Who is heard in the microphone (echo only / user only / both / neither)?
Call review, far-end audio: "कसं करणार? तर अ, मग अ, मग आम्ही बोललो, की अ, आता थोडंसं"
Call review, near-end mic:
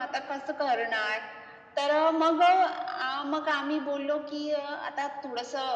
echo only